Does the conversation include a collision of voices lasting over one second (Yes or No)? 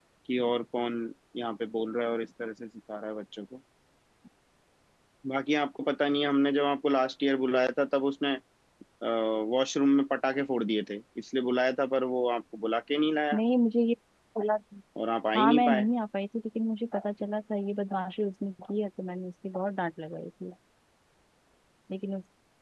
No